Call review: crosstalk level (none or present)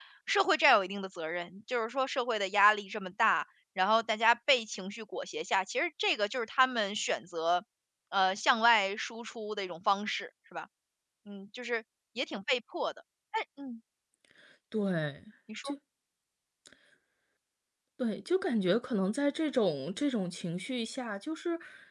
none